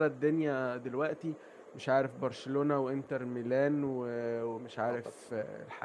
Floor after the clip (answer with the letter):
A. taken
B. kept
B